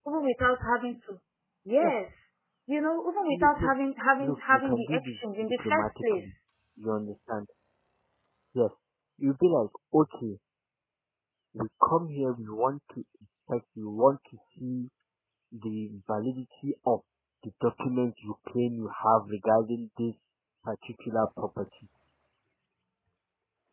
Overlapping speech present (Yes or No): Yes